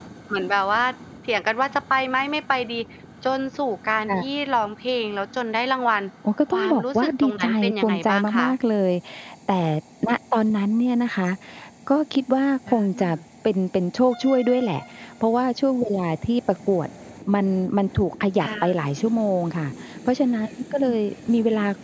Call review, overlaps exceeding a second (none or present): present